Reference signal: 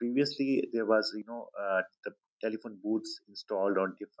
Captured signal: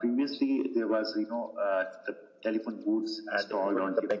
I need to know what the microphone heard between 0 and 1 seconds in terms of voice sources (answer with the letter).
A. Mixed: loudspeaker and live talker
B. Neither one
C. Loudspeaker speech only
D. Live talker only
C